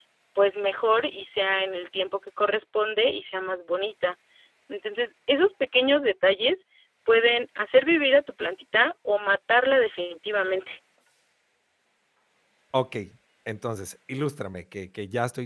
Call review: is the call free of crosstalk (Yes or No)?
Yes